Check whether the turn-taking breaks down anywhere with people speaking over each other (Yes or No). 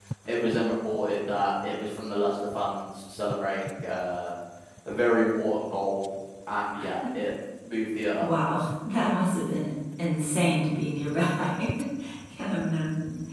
No